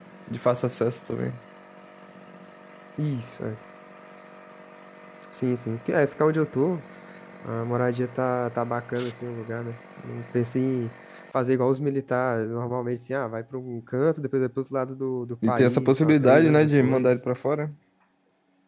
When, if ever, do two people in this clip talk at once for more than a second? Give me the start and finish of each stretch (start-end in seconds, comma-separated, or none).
15.5-17.2